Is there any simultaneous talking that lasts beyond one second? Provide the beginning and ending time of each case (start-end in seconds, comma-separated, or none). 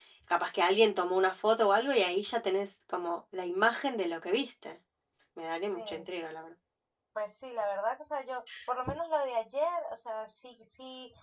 none